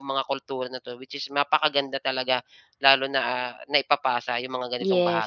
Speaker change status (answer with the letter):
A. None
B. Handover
B